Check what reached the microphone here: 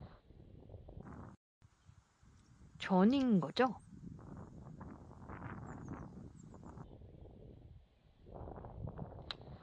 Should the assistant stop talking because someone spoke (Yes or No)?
Yes